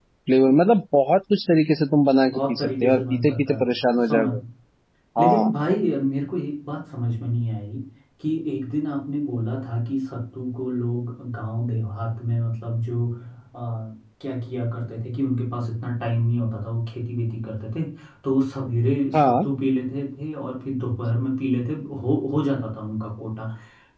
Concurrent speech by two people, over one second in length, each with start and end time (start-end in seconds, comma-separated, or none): 2.3-3.7